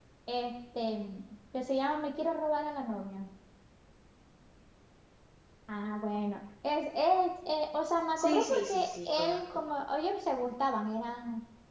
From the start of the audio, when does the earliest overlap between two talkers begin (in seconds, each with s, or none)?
8.2 s